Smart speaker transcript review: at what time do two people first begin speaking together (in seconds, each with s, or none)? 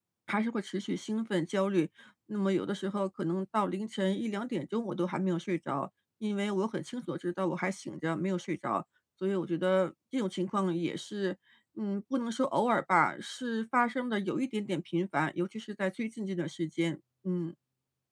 none